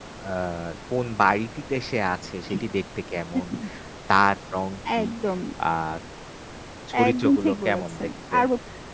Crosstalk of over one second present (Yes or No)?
Yes